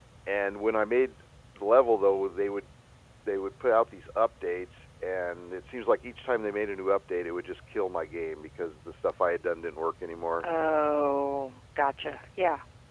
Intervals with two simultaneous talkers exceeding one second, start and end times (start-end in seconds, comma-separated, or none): none